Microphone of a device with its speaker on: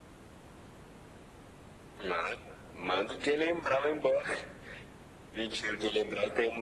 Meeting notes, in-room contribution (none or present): none